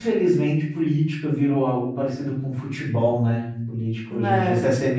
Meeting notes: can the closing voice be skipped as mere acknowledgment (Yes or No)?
Yes